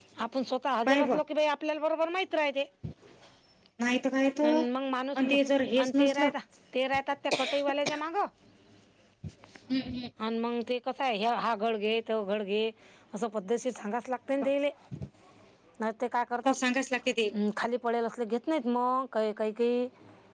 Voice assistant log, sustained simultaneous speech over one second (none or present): none